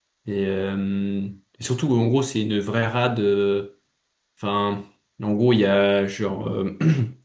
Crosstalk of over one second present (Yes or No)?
No